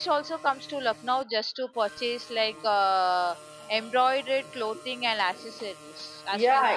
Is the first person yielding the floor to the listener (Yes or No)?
Yes